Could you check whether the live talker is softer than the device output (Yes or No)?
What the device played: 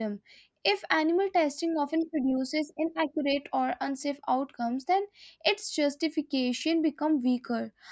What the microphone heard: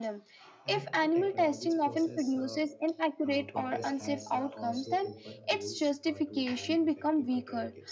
Yes